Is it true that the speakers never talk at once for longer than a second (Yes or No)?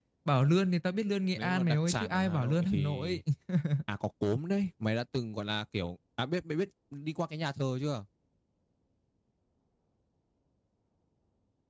No